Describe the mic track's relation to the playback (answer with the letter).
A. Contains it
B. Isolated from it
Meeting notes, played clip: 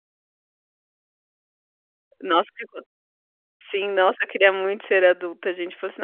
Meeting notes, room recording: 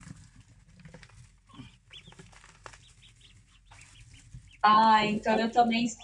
B